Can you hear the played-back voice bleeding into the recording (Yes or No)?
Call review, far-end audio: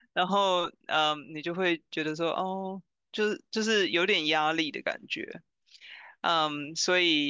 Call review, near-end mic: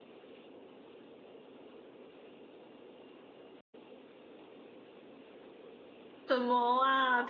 No